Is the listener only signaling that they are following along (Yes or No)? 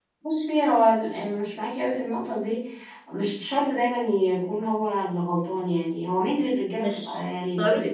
Yes